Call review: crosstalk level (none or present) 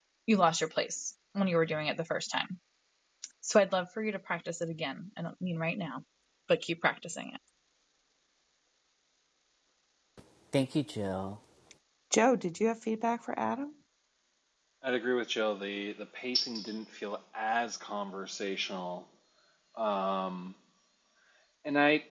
none